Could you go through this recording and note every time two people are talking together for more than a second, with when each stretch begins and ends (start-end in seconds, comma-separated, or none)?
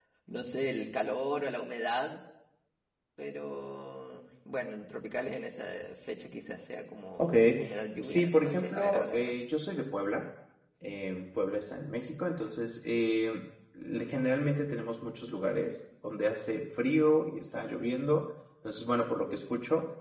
8.0-9.3